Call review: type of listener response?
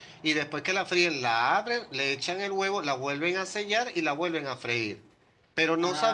listening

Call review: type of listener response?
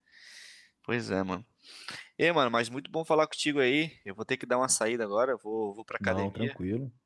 listening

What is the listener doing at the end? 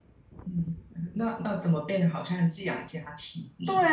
taking over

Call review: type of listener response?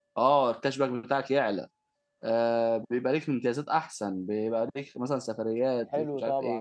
taking over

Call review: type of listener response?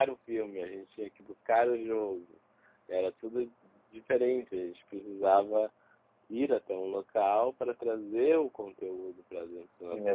taking over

